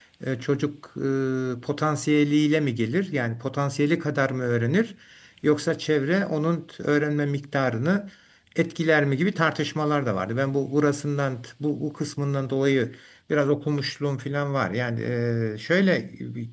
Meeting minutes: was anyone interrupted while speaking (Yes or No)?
No